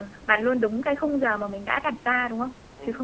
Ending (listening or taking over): taking over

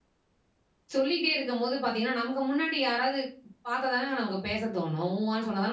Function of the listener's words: taking over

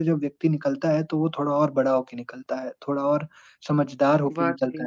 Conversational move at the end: listening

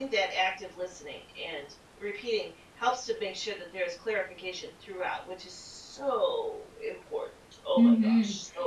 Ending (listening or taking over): taking over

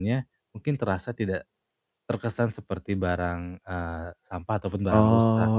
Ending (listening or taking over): taking over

